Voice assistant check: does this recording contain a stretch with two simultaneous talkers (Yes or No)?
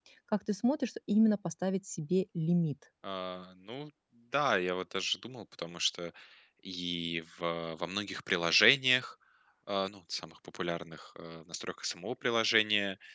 No